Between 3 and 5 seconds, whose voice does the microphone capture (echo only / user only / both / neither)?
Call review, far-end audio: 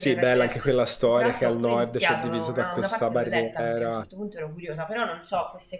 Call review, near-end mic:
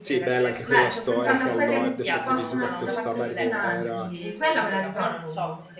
both